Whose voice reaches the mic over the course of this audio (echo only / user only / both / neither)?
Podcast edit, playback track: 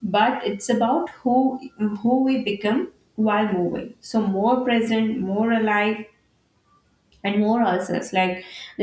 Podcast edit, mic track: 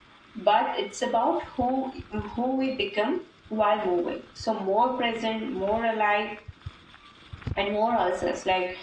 echo only